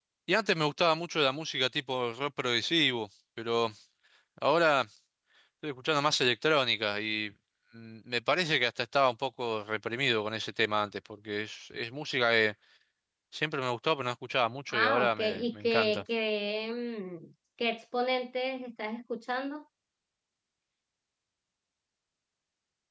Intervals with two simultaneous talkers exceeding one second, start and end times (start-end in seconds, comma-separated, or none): 14.7-16.0